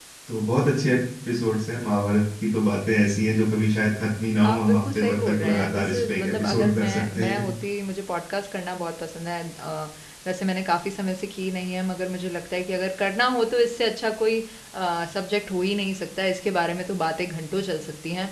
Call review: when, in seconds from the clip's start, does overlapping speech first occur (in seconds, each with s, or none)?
4.4 s